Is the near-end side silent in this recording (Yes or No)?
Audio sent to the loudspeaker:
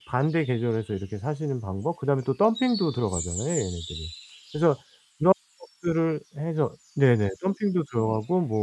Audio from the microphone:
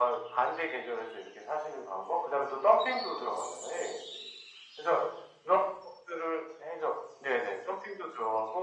Yes